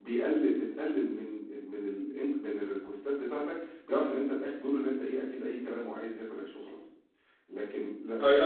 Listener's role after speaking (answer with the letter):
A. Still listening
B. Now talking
B